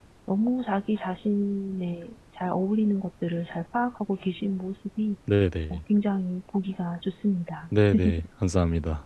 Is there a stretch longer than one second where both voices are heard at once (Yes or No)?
No